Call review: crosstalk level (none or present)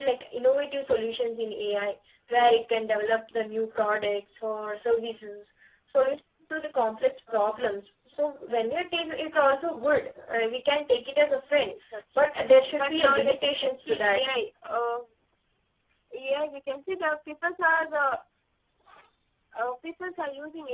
present